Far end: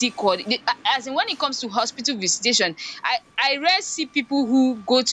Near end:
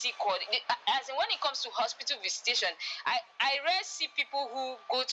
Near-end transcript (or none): none